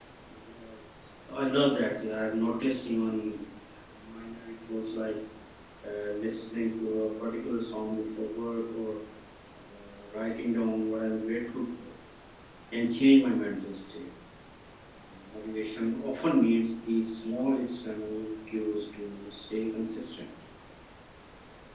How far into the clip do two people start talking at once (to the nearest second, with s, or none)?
none